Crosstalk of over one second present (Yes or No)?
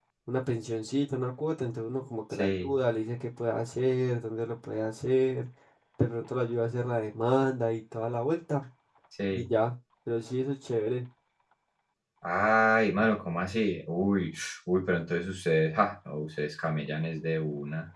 No